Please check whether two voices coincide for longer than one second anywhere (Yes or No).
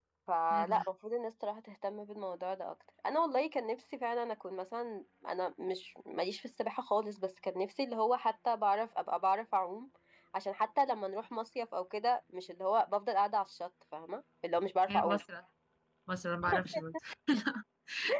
No